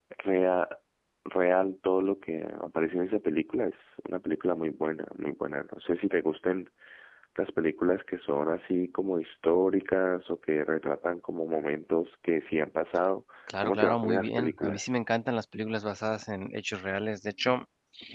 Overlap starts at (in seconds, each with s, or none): 13.5 s